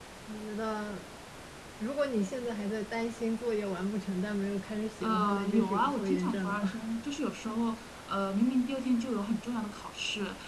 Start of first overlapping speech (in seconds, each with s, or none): 5.0 s